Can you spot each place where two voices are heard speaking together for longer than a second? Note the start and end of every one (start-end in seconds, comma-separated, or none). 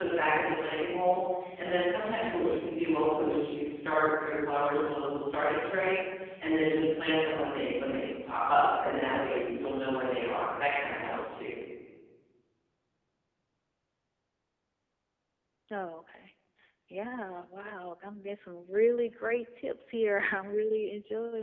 none